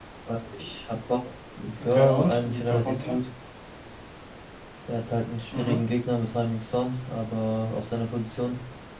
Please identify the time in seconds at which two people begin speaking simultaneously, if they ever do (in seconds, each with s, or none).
1.8 s